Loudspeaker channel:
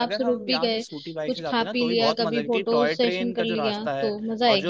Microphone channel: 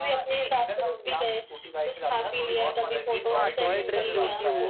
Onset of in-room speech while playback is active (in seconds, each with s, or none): 3.4 s